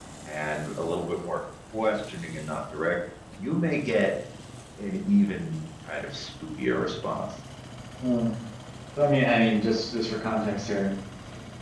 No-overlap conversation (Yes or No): Yes